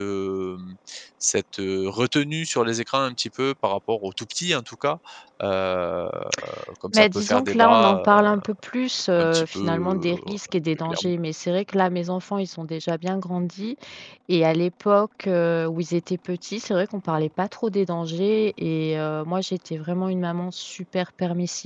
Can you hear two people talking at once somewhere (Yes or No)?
Yes